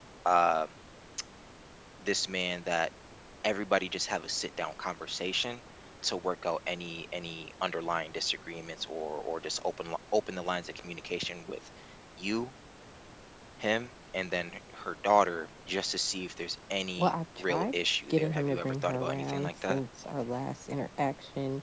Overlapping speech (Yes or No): Yes